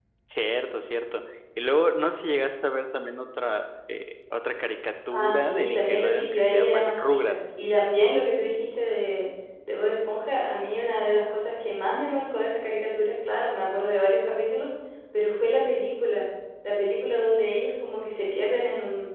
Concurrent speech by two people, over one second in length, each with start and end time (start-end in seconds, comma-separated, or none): 5.1-7.6